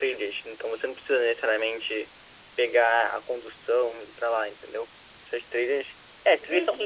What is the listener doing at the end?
taking over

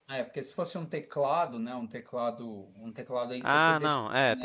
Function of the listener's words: taking over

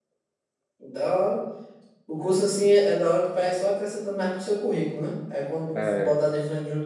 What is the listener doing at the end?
listening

